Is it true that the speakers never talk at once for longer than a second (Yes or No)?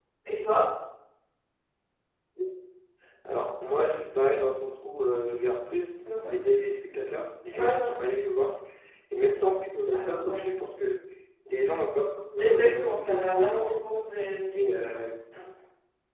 No